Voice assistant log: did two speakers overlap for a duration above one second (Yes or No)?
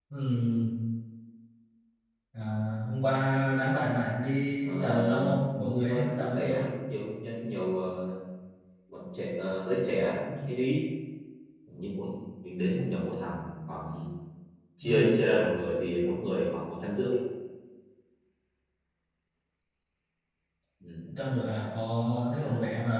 Yes